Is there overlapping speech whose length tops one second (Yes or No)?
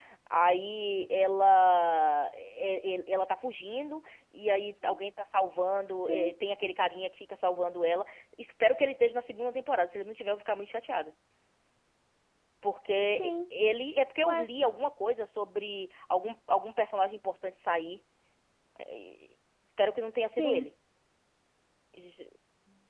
No